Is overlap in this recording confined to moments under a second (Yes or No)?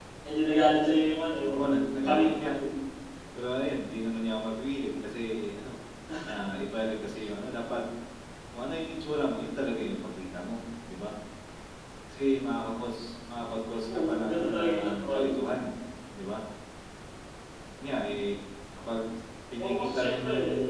No